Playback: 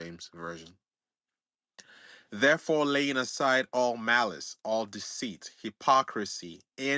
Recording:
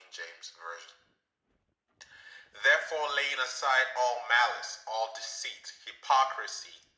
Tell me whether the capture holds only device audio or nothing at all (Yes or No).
Yes